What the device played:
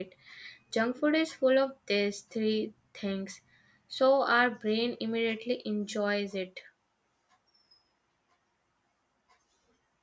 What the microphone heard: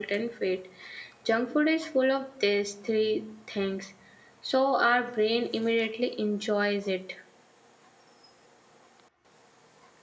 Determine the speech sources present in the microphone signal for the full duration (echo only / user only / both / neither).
echo only